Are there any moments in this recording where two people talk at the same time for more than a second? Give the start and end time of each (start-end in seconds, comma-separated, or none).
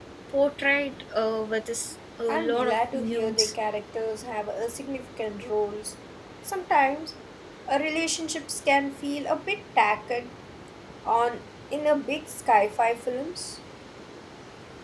2.3-3.5